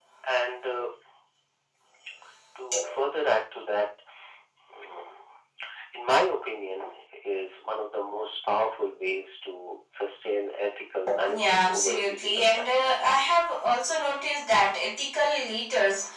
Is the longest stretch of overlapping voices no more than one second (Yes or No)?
No